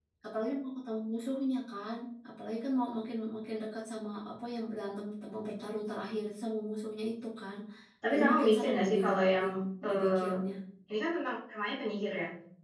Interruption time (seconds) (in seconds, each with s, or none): 8.1 s